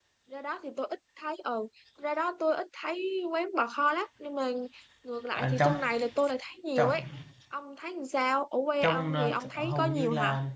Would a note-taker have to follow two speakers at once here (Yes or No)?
Yes